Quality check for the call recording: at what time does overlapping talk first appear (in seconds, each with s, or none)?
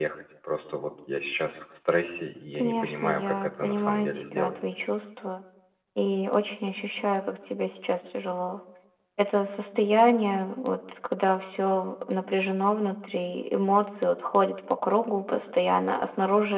2.6 s